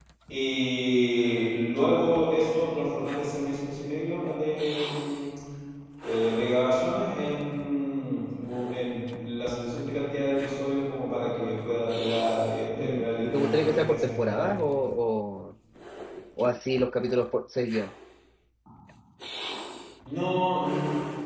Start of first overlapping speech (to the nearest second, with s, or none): 13 s